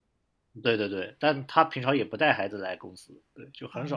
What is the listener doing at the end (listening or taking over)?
listening